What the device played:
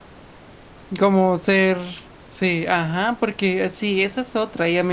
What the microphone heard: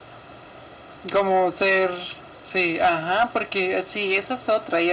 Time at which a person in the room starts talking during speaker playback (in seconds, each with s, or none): none